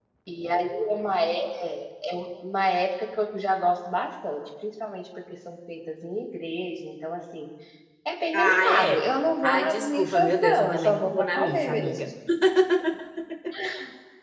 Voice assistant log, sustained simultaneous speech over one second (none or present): present